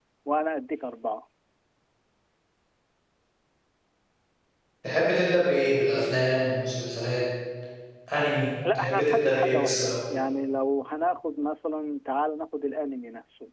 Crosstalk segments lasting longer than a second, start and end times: 8.8-10.1

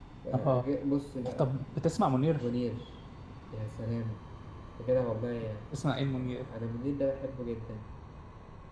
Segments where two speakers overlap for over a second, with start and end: none

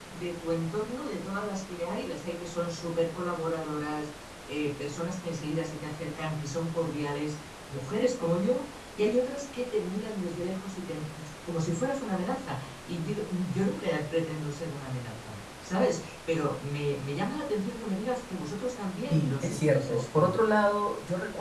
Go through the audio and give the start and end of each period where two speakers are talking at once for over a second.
19.1-20.4

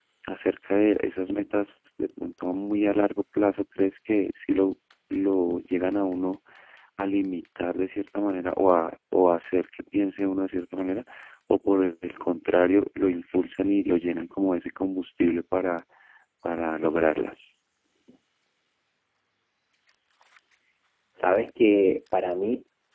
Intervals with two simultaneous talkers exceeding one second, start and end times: none

